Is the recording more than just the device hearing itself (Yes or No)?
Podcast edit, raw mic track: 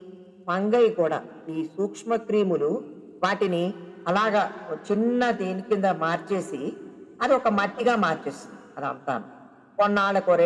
No